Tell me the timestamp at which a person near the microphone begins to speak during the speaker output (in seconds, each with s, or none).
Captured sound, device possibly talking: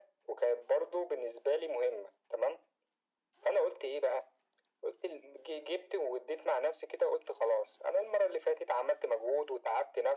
none